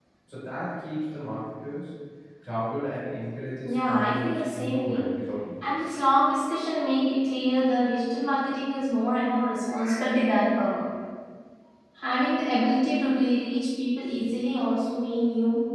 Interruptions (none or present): present